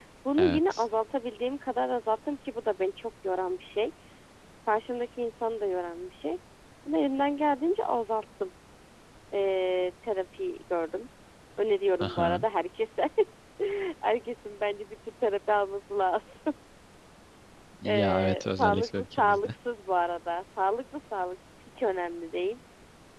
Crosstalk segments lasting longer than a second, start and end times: 17.9-19.5

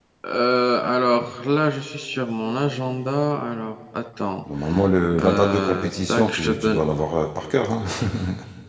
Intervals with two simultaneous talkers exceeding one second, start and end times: 5.2-6.8

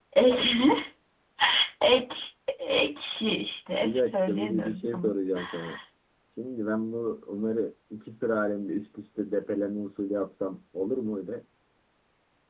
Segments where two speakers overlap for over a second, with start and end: 3.8-5.1

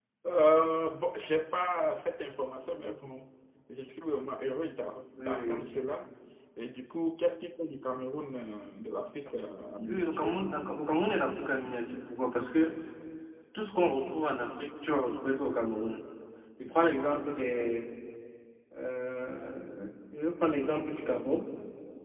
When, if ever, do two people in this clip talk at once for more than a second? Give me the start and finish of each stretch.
none

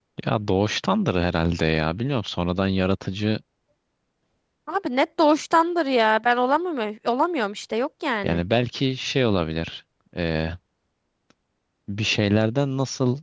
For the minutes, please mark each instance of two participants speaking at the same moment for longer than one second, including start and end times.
none

